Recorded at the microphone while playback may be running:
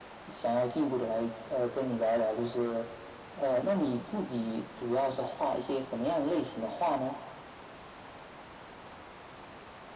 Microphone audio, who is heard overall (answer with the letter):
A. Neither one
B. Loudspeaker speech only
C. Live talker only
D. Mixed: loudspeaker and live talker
B